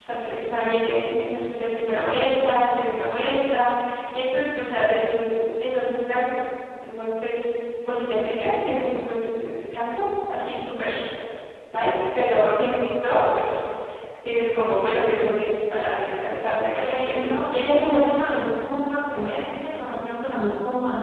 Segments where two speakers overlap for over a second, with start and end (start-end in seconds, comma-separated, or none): 16.7-18.2